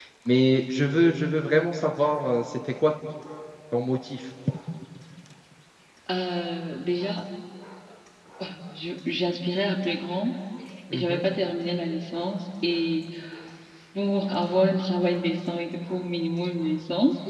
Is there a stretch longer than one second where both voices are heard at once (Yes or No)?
No